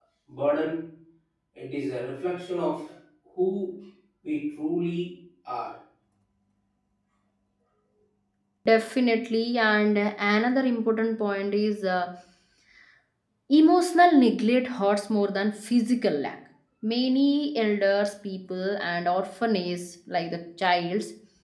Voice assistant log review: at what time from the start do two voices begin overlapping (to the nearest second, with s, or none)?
none